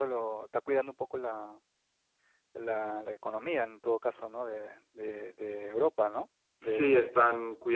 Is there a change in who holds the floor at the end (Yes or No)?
Yes